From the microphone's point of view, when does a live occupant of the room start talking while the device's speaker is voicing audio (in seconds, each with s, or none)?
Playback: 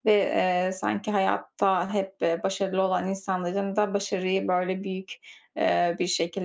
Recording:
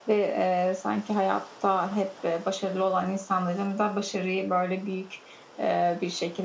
none